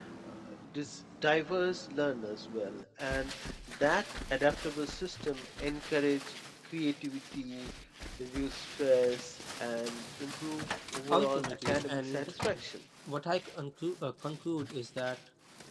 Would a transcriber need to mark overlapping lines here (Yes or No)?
Yes